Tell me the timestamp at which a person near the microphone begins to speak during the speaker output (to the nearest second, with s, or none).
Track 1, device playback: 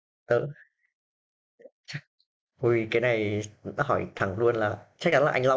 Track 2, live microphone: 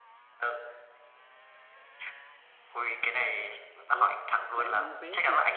4 s